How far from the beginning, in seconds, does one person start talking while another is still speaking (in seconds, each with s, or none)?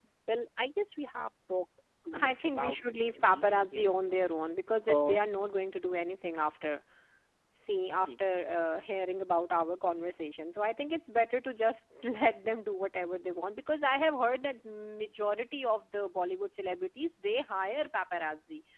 2.2 s